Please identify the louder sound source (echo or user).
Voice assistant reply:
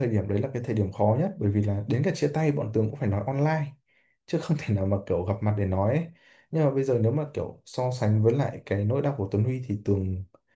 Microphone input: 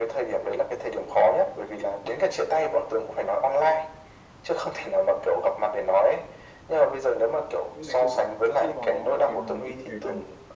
echo